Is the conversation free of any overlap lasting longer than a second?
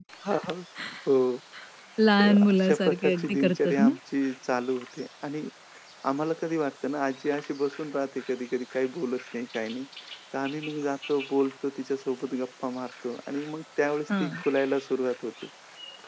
No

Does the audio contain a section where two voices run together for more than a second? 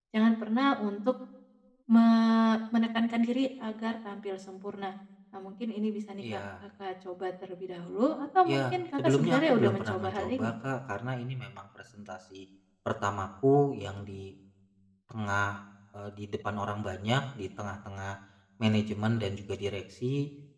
Yes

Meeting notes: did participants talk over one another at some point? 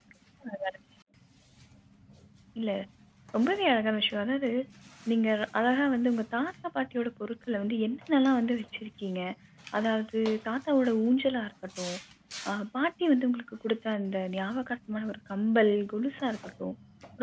No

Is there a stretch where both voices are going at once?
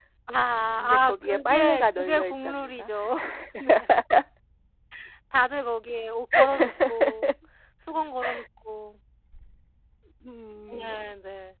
Yes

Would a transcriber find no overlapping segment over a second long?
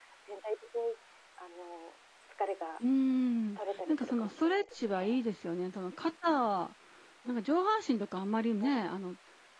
No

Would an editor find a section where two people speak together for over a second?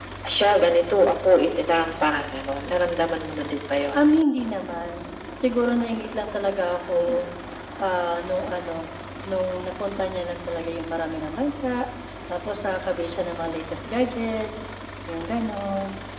No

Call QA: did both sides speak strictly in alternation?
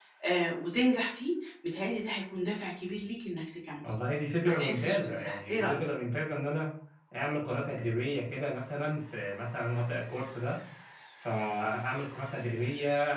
No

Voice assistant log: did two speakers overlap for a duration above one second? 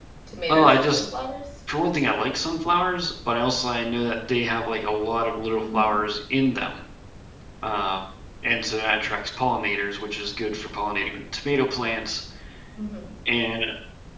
No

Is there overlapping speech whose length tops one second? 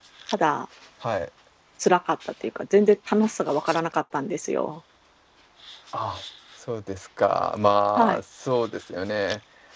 No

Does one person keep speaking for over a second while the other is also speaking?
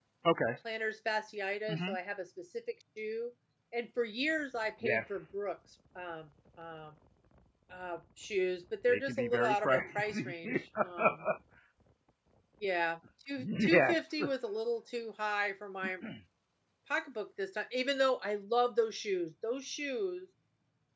Yes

